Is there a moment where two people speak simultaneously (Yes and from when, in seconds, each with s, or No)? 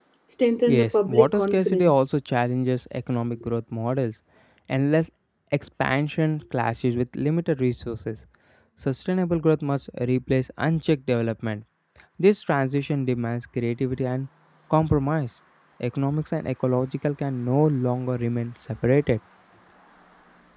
Yes, from 0.7 s